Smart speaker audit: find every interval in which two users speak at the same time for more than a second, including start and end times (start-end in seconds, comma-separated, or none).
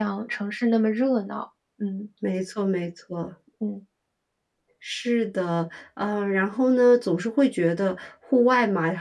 none